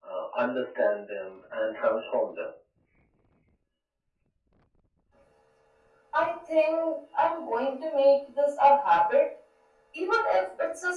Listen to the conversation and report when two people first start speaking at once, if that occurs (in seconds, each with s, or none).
none